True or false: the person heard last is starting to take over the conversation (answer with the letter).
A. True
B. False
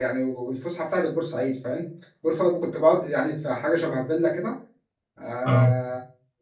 B